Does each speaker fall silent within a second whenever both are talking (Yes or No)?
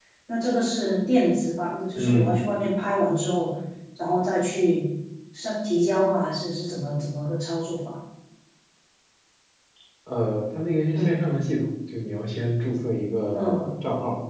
Yes